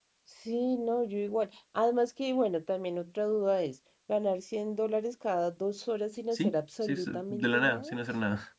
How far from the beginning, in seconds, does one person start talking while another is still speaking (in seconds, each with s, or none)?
6.3 s